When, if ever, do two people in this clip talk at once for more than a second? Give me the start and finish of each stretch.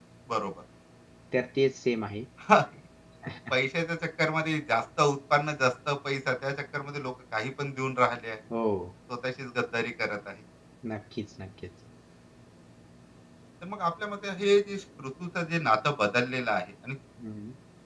none

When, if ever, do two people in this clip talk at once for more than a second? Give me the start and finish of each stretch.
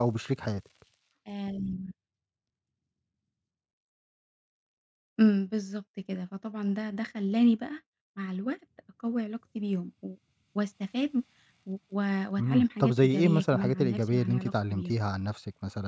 12.4-14.9

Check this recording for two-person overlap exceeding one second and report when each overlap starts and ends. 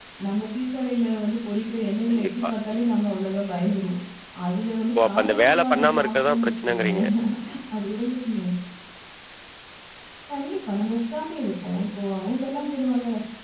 5.0-7.0

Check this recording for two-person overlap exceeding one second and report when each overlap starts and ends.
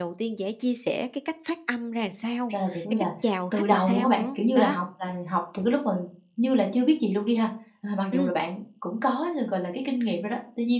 3.5-4.8

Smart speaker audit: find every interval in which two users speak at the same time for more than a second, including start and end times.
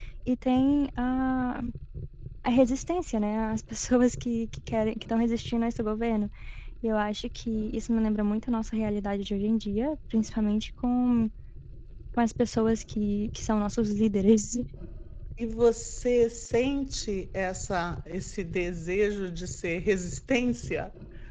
none

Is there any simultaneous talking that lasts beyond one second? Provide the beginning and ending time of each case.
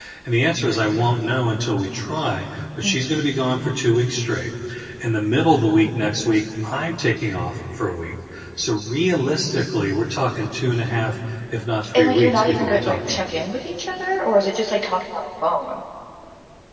11.9-13.2

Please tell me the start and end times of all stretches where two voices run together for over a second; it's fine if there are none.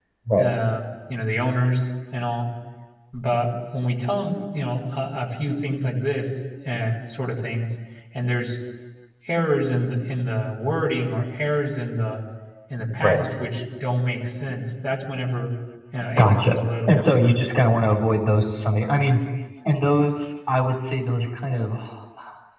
16.2-17.4

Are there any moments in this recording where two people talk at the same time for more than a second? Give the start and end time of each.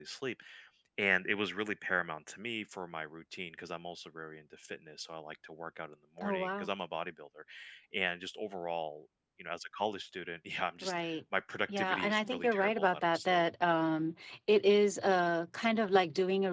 11.8-13.4

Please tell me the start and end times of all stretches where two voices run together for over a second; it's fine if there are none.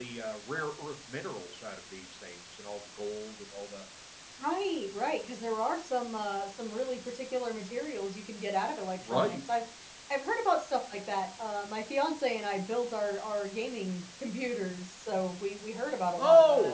none

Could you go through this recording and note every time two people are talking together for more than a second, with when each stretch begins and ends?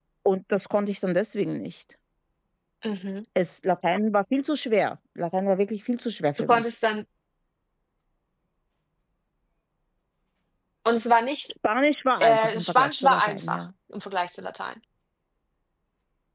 12.2-13.6

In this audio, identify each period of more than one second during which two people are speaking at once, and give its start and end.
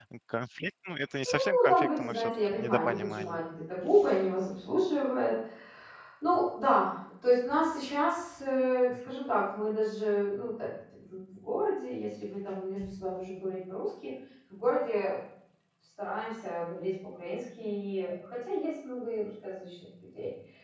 1.2-3.4

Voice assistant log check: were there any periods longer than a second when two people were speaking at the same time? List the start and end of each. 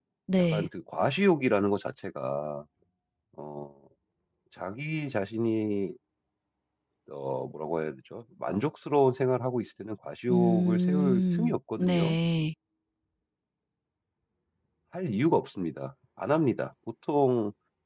10.3-12.2

